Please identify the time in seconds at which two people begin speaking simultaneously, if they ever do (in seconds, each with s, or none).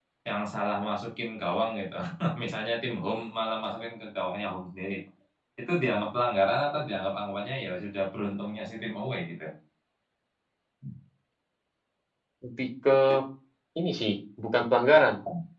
none